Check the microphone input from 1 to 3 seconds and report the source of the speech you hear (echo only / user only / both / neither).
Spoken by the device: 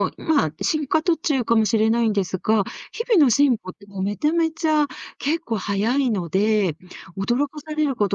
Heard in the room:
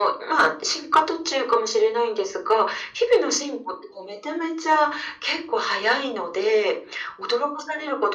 echo only